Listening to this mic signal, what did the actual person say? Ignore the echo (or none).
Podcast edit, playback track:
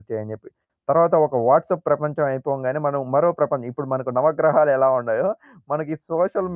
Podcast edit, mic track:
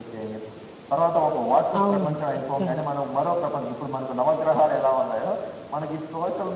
అవునండి. ఖచ్చితంగా.